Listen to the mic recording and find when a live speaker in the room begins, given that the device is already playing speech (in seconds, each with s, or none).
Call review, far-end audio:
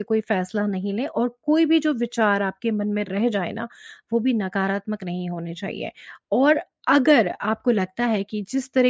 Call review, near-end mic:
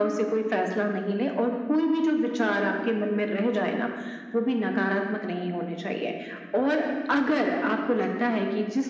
none